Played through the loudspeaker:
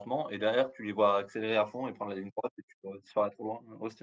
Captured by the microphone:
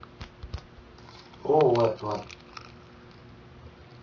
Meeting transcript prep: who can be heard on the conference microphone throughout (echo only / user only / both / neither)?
user only